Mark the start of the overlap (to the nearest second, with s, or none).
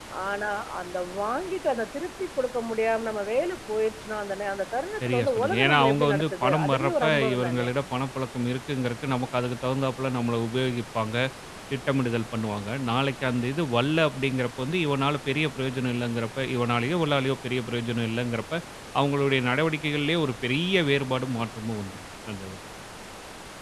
5 s